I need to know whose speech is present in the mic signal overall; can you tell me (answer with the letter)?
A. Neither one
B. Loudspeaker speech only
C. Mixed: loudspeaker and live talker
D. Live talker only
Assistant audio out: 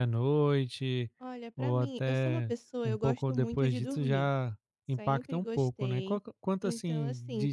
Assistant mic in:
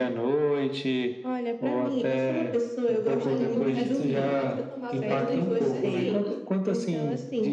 C